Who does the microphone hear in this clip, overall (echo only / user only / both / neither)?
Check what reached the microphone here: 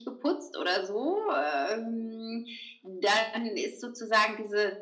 echo only